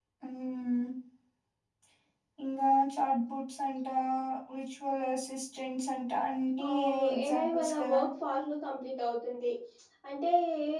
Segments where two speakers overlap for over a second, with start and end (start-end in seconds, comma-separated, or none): 6.7-8.0